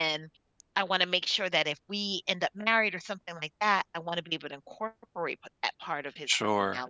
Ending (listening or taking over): taking over